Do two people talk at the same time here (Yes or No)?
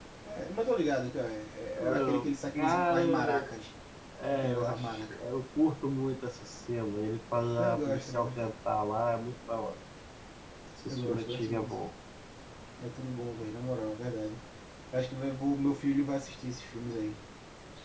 Yes